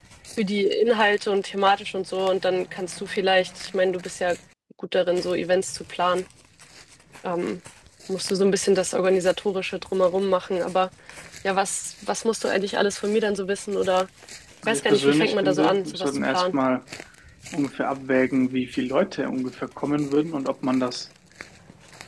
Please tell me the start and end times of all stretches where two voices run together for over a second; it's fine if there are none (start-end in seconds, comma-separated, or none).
14.6-16.6